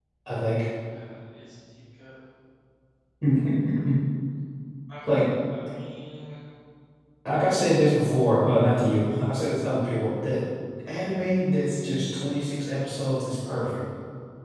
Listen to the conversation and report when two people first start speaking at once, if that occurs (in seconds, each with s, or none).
none